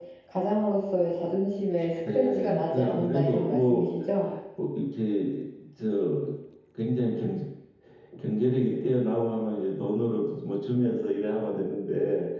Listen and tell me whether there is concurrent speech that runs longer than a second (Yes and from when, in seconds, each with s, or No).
Yes, from 2.1 s